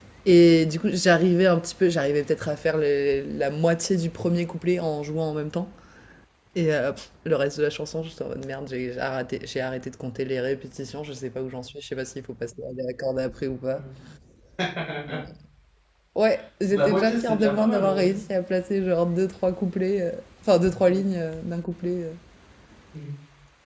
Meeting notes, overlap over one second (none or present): present